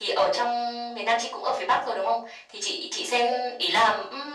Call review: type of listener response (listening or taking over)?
listening